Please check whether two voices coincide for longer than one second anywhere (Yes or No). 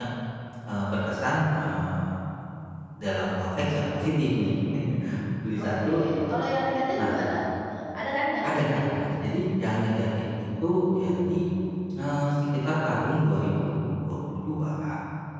No